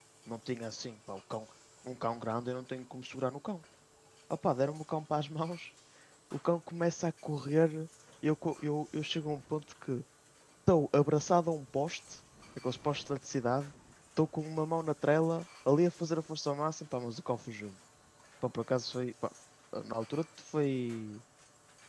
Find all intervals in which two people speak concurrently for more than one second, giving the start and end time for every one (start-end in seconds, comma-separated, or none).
none